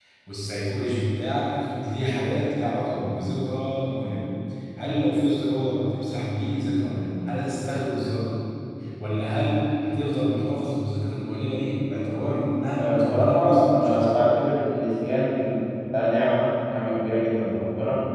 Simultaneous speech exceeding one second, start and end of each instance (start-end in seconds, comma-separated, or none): 12.8-14.3